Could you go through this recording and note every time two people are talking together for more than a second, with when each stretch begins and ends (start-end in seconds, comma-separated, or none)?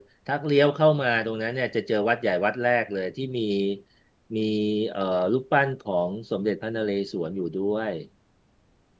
none